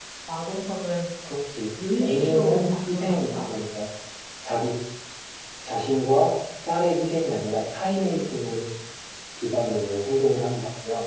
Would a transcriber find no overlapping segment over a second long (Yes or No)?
No